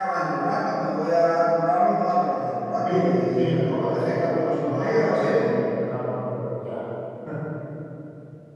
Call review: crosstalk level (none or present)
present